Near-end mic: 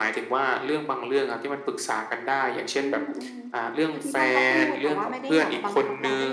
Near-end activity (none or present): none